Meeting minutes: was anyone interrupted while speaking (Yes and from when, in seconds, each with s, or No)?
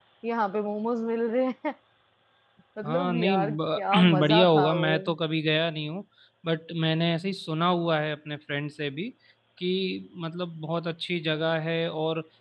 Yes, from 2.9 s